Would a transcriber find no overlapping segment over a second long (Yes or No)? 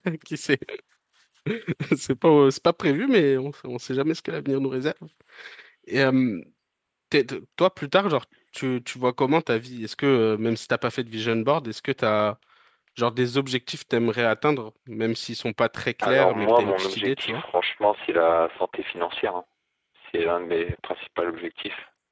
No